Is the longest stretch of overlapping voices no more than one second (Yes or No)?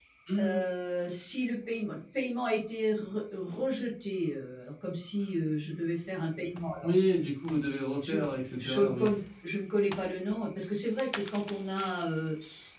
Yes